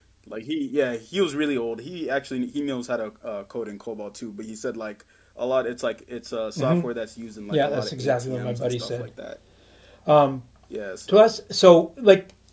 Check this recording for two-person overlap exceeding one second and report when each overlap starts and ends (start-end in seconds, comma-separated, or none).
7.5-9.1